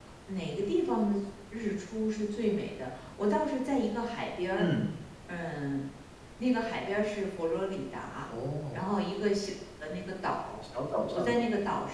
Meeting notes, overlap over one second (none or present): none